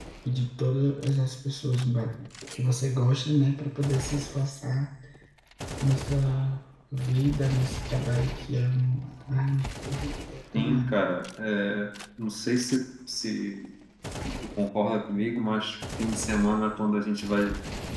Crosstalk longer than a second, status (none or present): none